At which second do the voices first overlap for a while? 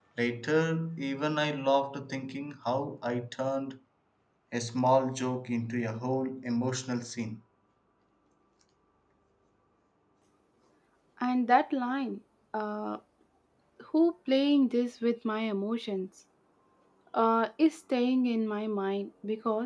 none

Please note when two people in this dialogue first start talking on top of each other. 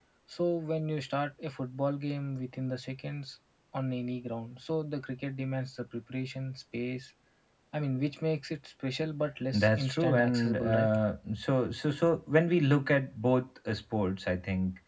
10 s

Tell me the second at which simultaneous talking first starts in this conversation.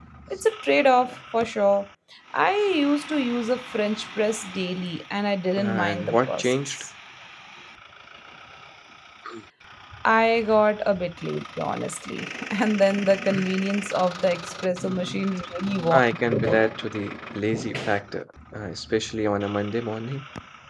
6 s

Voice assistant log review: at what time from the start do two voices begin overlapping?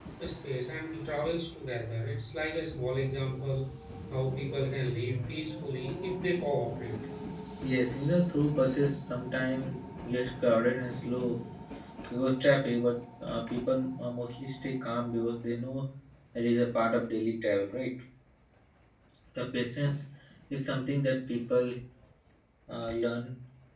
none

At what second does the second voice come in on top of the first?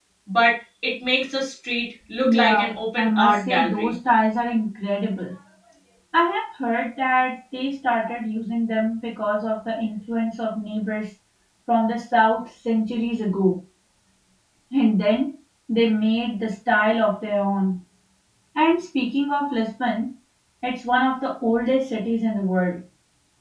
2 s

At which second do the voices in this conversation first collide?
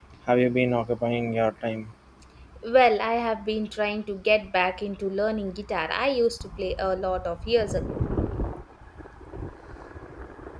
none

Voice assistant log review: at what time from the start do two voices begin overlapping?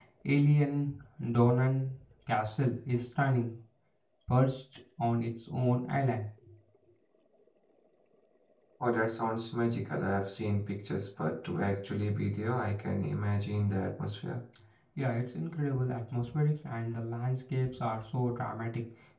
none

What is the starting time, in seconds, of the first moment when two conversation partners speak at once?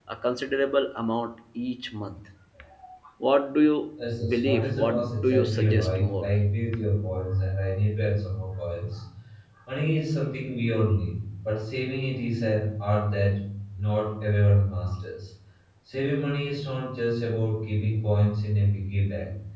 4 s

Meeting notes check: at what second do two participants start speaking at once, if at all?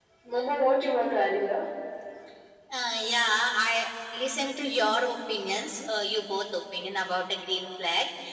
none

